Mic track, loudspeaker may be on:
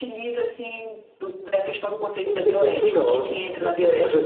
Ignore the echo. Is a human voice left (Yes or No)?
Yes